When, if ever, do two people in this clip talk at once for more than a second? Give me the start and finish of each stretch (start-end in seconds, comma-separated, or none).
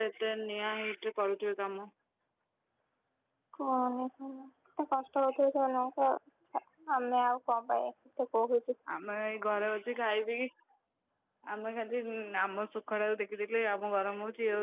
none